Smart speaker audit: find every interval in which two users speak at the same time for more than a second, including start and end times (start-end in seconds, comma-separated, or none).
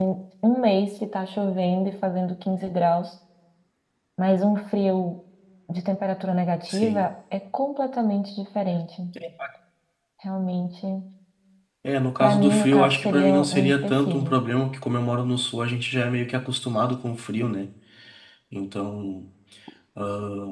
12.2-14.3